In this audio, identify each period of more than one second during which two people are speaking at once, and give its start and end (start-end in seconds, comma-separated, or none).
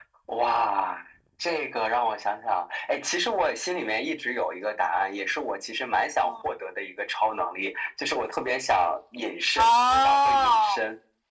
9.6-10.8